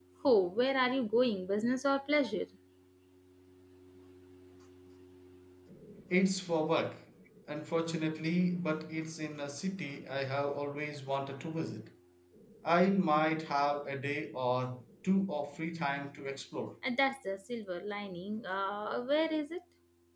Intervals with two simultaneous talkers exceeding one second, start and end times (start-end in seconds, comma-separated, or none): none